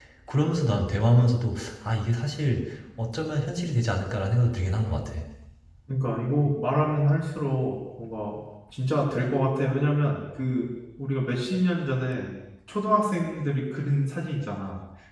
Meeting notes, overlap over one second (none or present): none